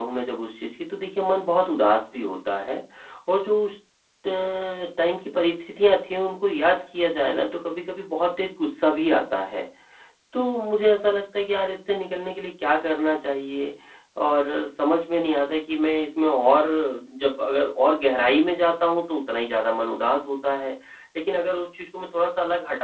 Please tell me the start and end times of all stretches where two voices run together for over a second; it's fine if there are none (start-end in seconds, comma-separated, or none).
none